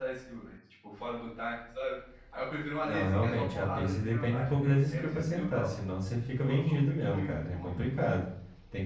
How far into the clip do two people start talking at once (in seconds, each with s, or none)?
2.8 s